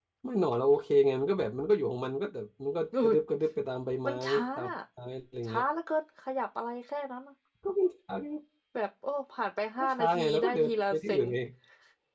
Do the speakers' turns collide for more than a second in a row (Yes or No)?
Yes